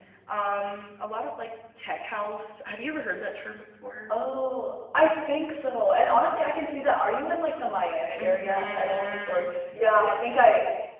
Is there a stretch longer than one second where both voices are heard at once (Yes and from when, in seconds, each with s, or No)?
Yes, from 8.0 s